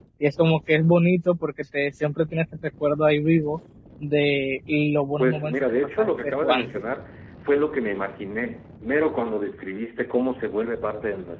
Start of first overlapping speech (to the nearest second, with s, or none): 5 s